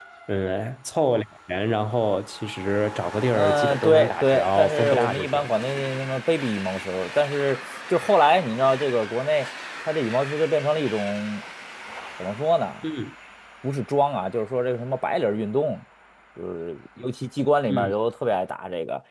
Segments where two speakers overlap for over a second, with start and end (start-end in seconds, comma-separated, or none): 3.3-5.5